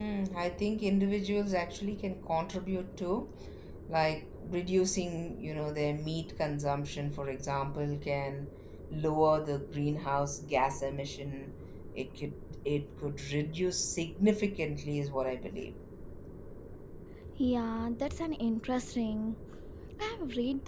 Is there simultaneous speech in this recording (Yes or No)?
No